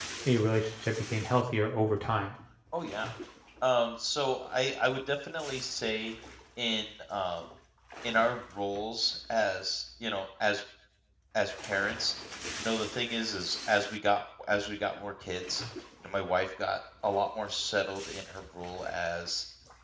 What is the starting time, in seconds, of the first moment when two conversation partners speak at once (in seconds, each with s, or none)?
none